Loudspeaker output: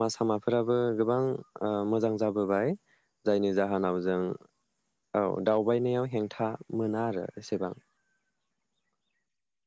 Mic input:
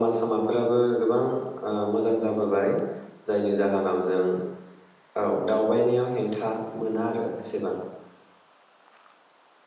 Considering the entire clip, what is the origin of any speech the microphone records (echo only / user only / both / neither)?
echo only